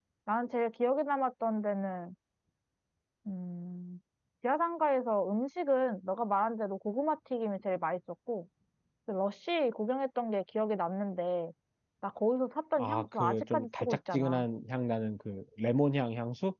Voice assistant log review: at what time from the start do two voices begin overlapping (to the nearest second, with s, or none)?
13 s